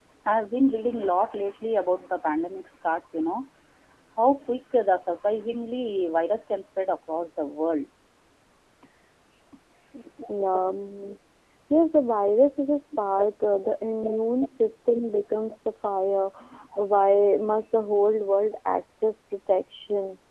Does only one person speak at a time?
Yes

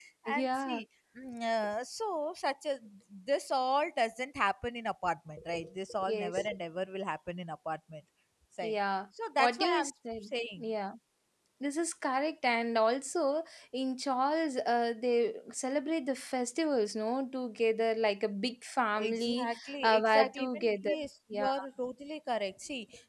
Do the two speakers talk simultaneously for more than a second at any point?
Yes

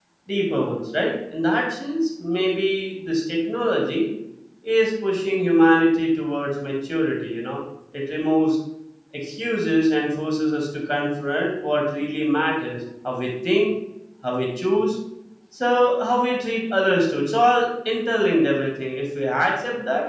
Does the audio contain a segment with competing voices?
No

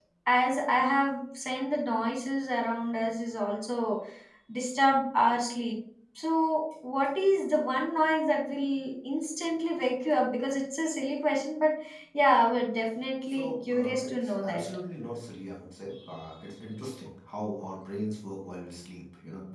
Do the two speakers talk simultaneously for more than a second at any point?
Yes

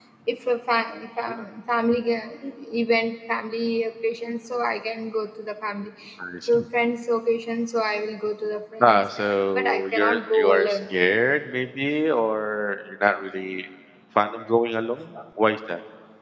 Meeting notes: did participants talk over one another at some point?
Yes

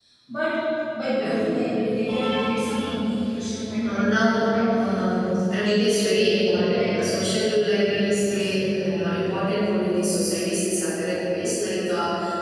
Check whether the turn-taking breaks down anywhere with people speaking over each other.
Yes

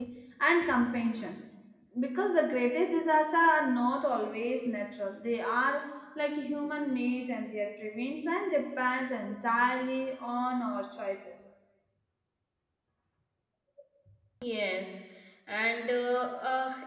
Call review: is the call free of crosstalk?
Yes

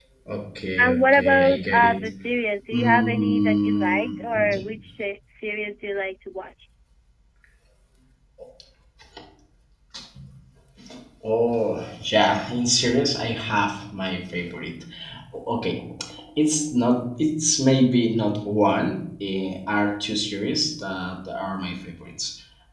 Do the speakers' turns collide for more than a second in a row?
Yes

